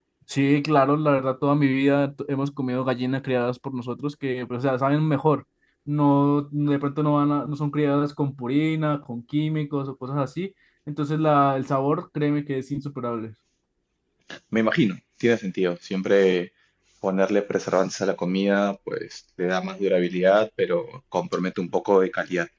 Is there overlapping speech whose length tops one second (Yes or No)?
No